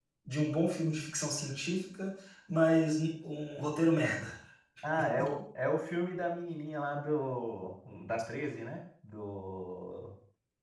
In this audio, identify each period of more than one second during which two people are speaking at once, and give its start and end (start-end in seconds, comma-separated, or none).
none